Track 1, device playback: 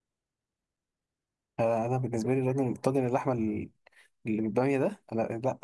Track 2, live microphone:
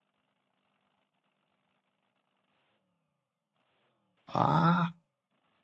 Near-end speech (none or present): present